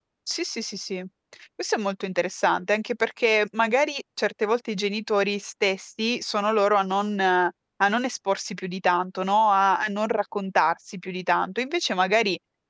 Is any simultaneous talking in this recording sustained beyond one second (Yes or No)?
No